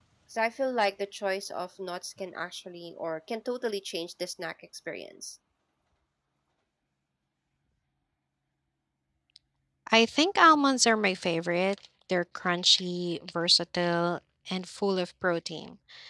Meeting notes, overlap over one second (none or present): none